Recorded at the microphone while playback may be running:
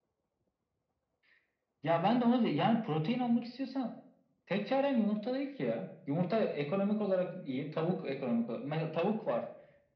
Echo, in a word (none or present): present